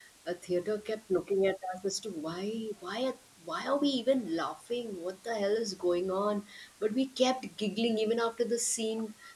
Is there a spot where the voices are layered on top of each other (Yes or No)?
No